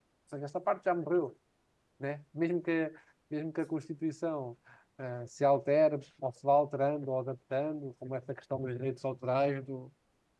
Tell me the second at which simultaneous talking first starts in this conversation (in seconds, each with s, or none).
none